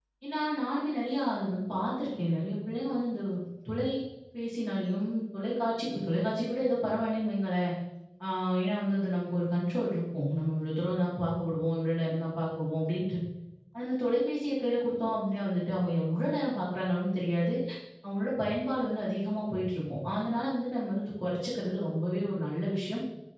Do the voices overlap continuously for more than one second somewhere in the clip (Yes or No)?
No